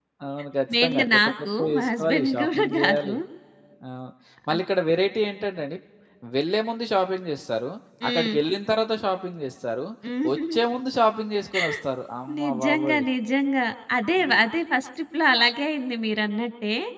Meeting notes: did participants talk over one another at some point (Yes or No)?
Yes